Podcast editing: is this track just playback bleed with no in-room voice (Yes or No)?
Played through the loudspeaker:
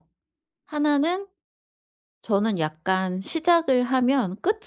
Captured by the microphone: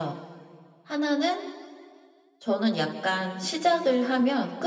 Yes